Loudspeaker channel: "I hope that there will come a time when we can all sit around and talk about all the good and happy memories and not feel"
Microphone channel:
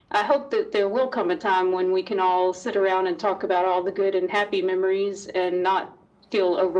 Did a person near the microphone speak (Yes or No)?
No